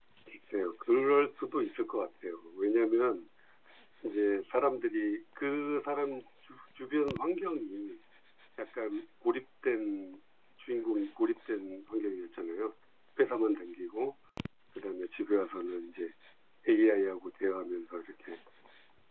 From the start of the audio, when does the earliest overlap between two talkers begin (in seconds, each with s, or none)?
none